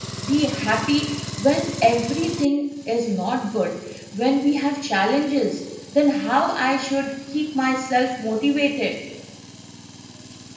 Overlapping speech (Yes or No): No